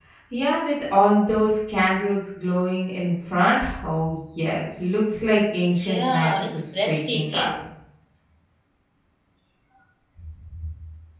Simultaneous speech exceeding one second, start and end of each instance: 5.7-7.5

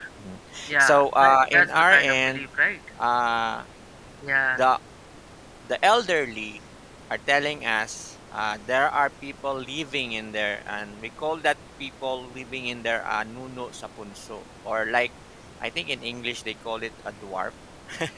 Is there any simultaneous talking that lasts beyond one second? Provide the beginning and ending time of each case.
0.8-2.4

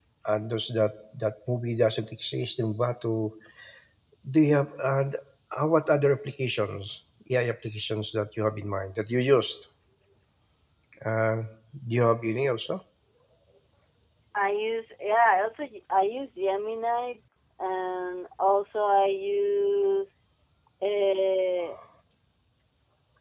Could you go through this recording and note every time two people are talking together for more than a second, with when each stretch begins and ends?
none

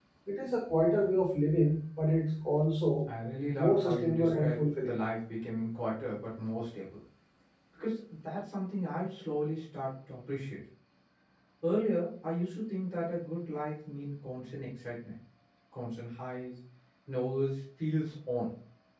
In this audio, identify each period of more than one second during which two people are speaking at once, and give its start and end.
3.5-5.0

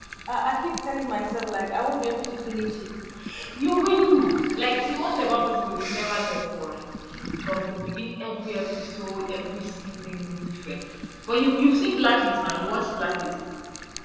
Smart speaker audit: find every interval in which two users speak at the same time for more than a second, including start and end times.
none

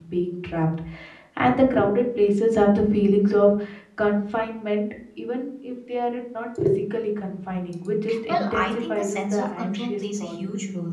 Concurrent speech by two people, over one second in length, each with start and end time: 8.3-10.3

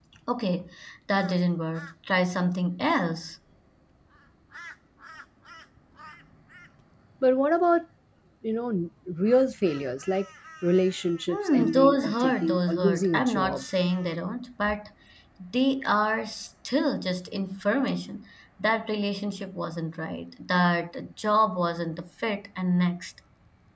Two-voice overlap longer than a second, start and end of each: 11.3-13.7

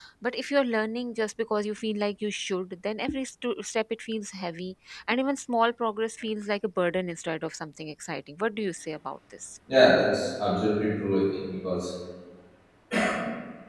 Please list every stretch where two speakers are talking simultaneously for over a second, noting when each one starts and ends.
none

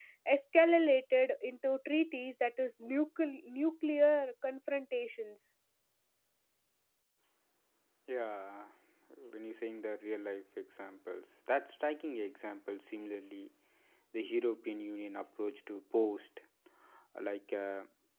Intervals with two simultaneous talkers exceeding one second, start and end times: none

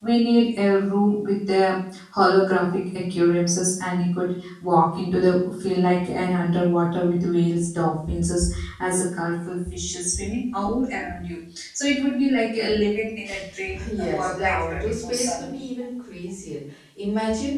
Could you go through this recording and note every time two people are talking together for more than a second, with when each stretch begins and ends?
13.8-15.6

